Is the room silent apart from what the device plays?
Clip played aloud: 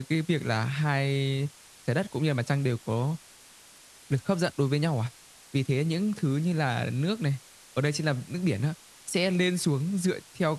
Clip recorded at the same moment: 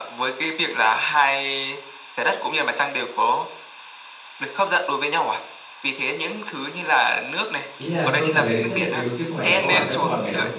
No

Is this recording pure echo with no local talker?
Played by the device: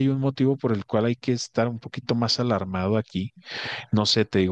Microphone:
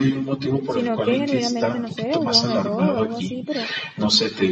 No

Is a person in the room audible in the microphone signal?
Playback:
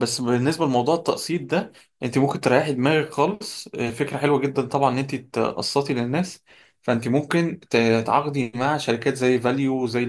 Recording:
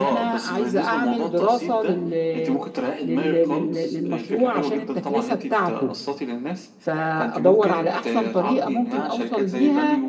Yes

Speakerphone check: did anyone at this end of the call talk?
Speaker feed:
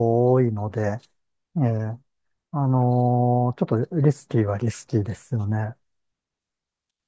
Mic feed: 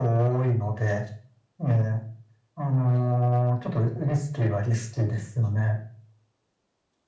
No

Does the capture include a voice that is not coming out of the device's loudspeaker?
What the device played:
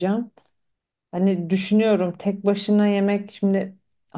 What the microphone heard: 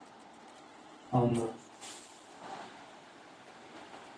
Yes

